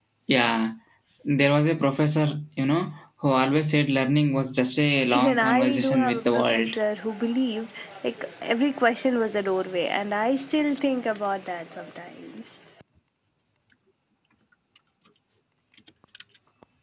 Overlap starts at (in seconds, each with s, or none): 5.1 s